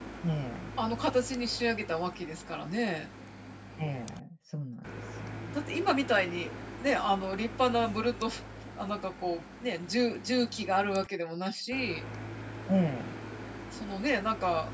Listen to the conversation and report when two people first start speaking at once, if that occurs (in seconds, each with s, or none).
none